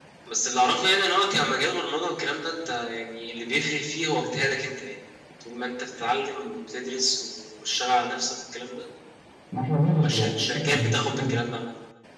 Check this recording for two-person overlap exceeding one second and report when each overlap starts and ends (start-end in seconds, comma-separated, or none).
9.9-11.3